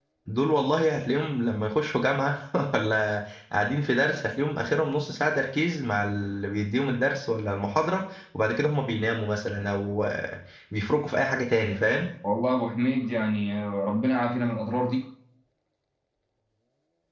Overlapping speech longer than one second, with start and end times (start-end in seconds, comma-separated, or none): none